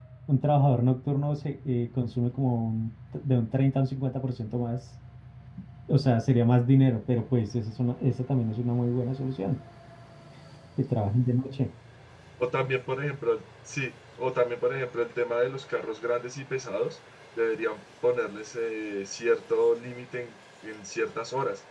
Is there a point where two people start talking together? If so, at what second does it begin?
none

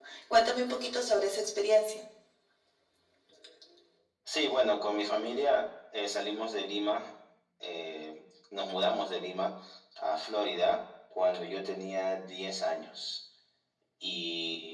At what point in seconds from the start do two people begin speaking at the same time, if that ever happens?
none

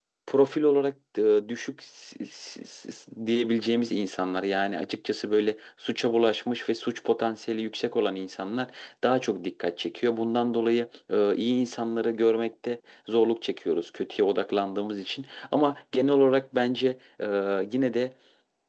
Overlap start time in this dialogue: none

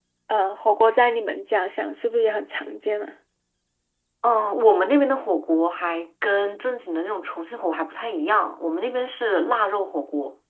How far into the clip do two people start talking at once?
none

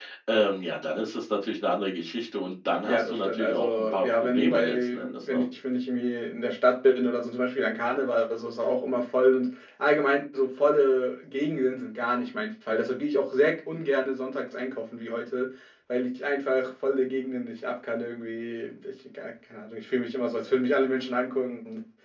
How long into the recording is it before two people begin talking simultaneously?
2.8 s

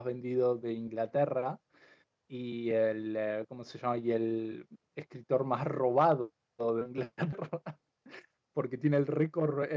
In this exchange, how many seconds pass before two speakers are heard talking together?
none

